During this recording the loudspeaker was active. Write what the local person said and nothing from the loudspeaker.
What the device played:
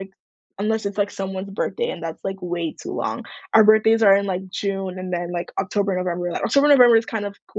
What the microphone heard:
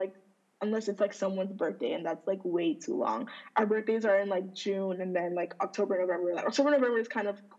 none

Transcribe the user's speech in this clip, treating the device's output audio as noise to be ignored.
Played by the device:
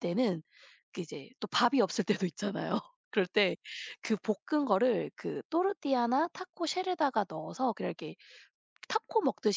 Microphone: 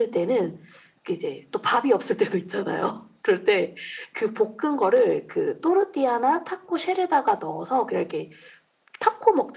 none

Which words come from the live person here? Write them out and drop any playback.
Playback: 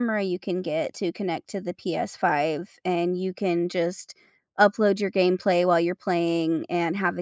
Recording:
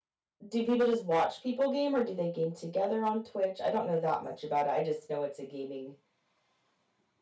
Do people just watch people game or do they game together on Twitch? I don't know that much about it. I just know it's a gaming,

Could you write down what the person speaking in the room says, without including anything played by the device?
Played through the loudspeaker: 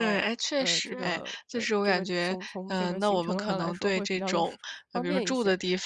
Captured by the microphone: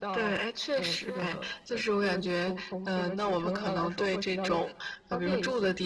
none

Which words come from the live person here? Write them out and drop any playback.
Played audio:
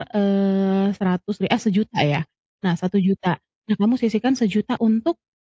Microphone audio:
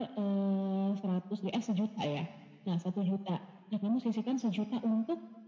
none

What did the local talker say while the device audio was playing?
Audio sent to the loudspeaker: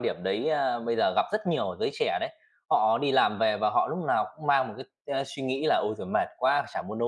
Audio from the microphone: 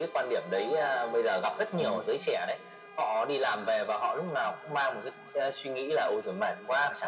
Ừm,

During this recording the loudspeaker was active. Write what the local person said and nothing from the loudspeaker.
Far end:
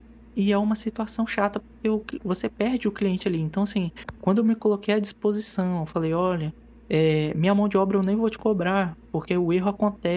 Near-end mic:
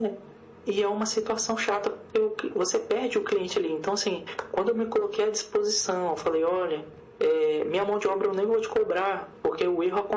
none

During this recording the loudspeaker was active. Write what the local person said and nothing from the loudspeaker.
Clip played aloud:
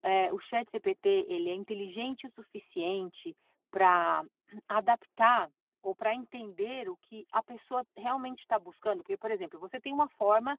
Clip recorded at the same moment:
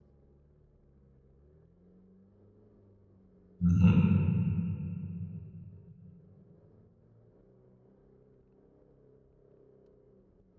uhum,

